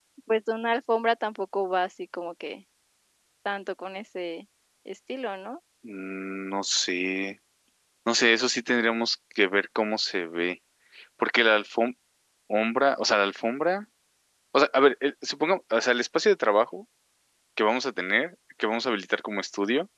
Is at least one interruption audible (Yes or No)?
No